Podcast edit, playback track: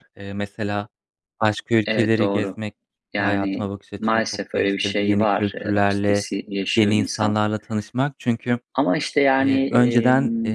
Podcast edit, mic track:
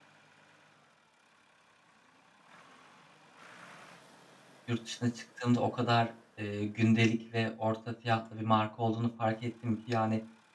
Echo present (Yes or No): No